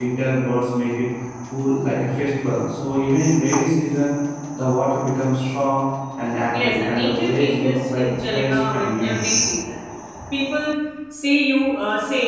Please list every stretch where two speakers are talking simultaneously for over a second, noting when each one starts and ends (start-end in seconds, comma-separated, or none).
6.6-9.2